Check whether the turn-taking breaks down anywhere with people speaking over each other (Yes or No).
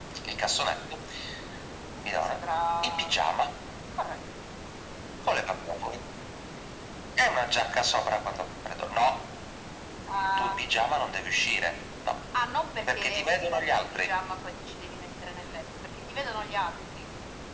Yes